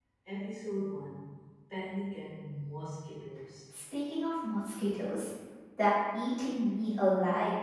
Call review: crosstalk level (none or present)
none